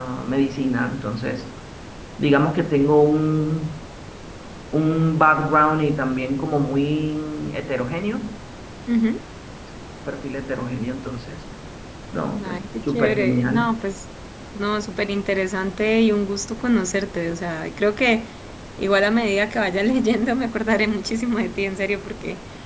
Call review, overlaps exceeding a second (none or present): present